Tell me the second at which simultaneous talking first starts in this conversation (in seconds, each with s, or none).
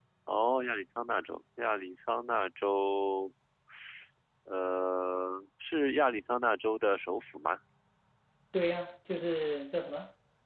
none